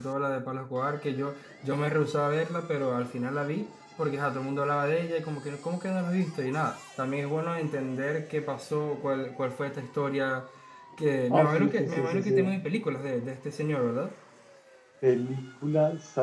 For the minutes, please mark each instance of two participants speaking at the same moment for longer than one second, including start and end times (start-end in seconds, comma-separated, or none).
11.3-12.5